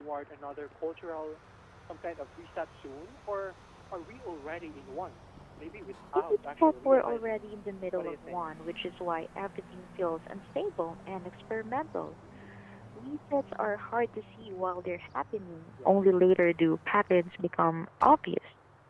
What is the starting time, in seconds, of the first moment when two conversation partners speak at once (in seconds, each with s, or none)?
6.2 s